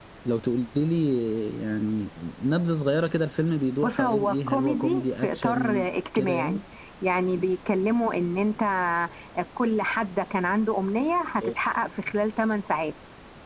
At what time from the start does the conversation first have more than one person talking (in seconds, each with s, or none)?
3.8 s